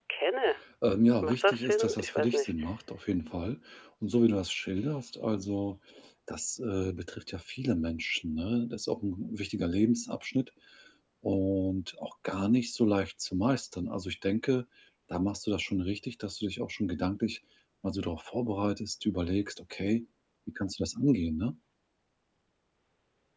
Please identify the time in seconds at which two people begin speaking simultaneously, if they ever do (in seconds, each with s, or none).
1.2 s